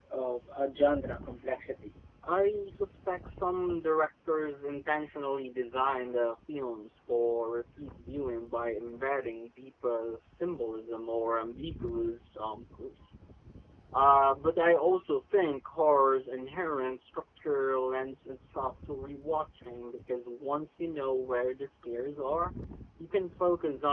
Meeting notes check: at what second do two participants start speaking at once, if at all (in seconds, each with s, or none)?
none